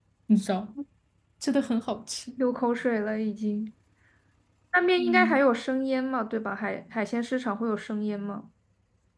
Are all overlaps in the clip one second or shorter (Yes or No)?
Yes